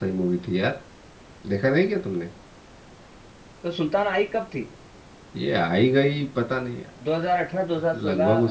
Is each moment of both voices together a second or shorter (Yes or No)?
Yes